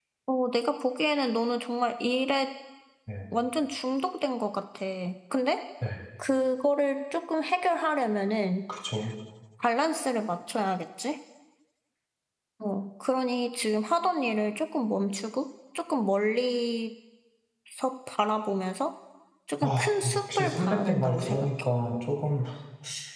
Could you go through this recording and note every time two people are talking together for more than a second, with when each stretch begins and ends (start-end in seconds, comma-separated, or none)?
19.6-21.5